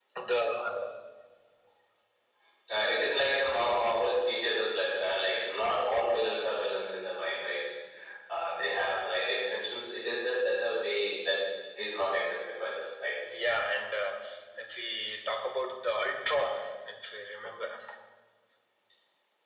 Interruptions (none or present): none